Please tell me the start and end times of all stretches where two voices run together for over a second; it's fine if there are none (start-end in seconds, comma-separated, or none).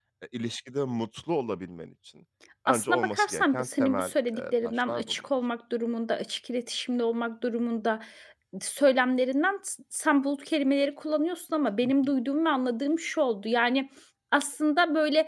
2.7-5.3